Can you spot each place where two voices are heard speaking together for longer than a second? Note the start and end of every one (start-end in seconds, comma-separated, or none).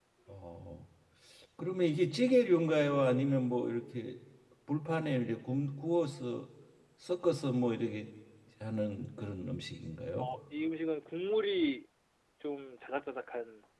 none